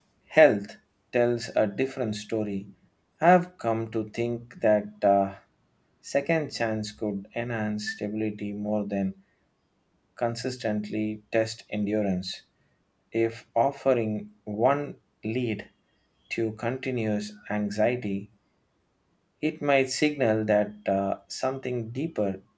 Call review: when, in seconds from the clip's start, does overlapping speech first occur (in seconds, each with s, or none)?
none